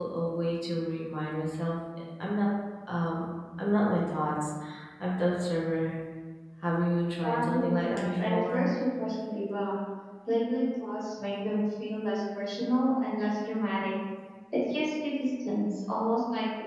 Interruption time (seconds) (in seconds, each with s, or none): 7.2 s